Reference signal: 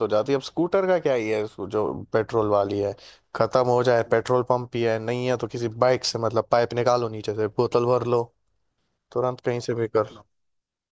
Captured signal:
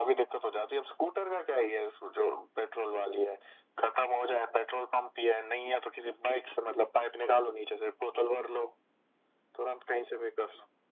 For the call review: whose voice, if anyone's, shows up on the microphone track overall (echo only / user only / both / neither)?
echo only